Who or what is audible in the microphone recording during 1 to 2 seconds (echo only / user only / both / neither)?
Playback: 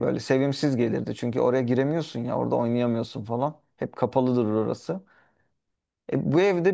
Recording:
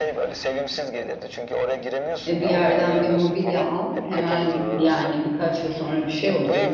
echo only